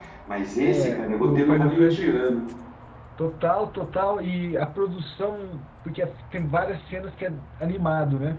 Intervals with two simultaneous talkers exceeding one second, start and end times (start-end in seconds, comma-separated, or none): 0.7-2.2